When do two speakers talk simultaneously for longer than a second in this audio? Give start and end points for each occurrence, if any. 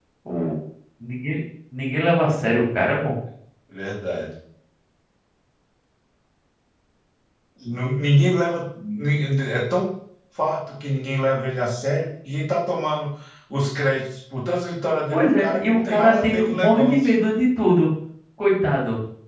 15.1-17.1

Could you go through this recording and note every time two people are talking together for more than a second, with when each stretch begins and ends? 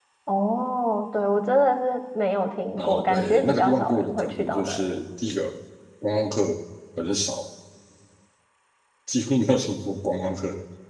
2.8-5.0

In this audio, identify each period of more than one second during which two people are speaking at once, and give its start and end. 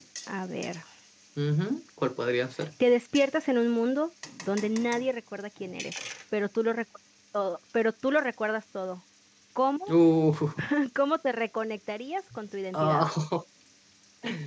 none

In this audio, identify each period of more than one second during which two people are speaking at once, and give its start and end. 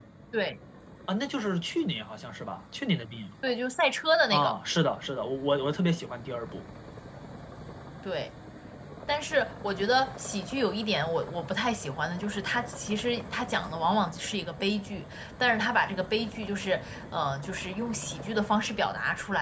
none

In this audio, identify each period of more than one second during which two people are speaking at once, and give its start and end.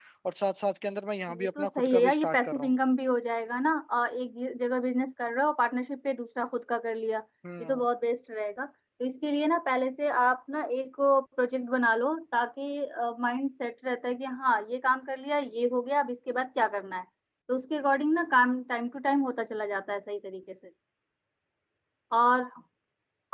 1.3-2.7

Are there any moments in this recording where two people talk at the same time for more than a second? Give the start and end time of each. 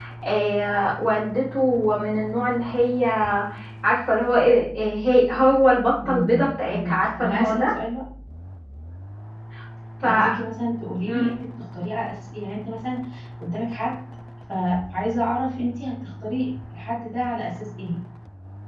6.0-7.8

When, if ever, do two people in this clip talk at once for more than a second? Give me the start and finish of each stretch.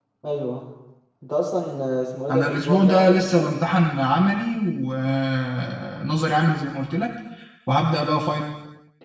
2.3-3.5

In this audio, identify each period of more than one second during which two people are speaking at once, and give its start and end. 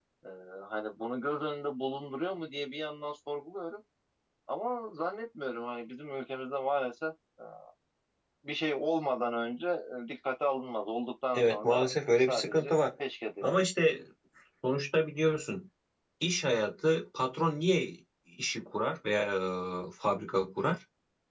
11.3-12.8

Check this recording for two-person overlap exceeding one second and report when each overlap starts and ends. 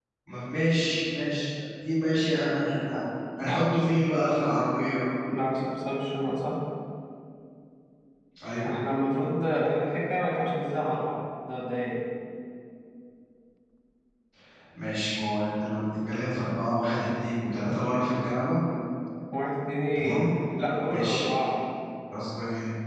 none

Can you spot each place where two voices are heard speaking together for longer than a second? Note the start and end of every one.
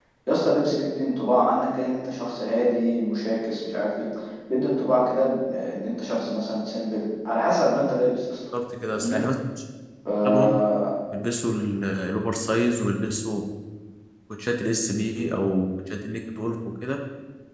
none

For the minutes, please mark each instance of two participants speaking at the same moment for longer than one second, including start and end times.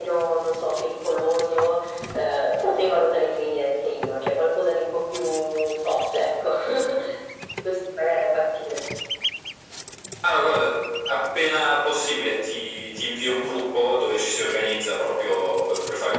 none

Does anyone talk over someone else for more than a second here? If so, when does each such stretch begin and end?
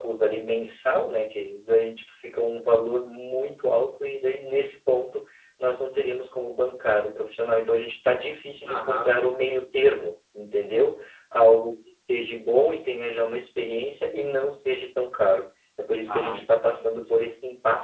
16.1-17.3

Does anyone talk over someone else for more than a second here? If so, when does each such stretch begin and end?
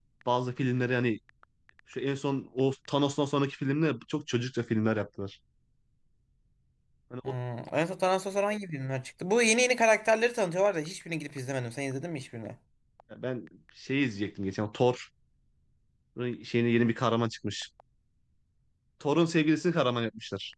none

